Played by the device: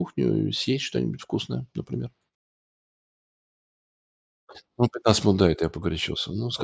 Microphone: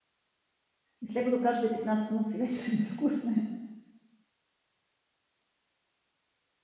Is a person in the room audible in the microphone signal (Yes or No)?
Yes